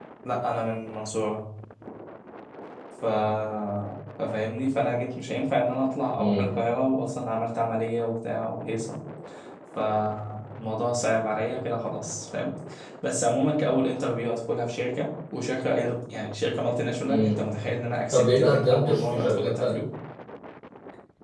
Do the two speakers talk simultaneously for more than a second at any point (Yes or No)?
Yes